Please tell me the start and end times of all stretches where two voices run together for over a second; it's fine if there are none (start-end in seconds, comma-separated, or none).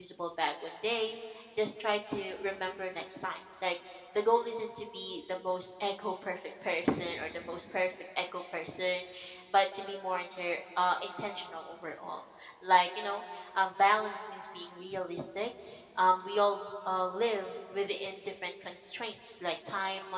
none